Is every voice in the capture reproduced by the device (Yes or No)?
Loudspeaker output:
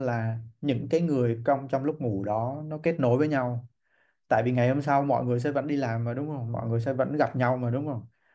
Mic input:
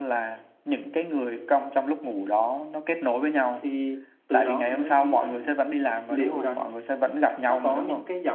No